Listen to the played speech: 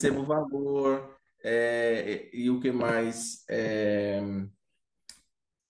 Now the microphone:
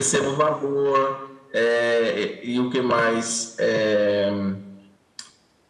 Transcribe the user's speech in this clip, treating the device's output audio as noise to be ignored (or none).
none